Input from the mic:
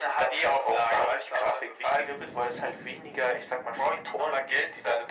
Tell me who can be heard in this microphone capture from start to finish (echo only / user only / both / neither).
echo only